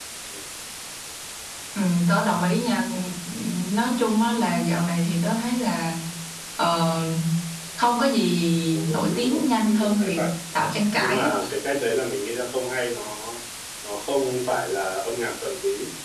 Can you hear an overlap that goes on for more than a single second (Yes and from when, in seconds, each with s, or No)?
Yes, from 8.7 s